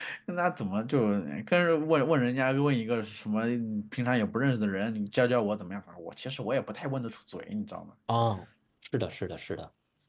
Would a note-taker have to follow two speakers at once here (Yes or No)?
No